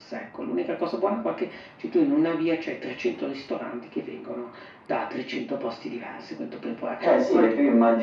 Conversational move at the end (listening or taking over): taking over